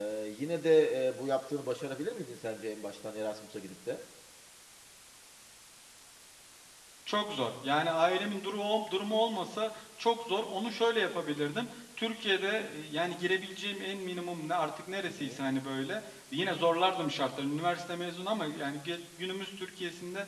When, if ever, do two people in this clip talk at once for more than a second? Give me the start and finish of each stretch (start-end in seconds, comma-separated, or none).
none